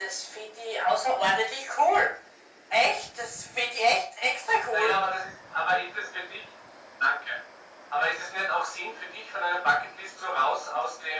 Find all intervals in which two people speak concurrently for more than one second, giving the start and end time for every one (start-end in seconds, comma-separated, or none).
none